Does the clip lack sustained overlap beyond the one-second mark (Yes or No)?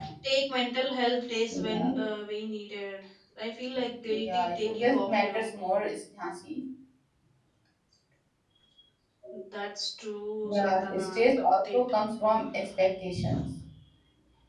No